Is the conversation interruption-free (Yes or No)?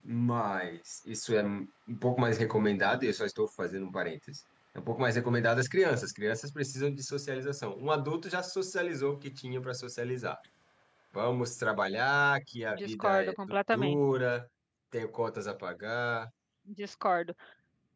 No